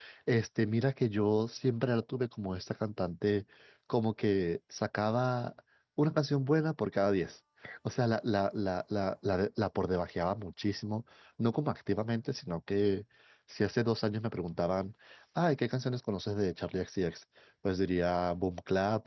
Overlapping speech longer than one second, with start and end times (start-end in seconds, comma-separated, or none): none